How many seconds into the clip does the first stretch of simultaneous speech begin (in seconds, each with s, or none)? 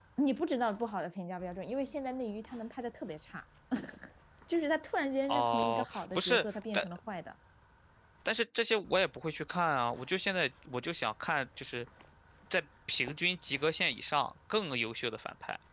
5.3 s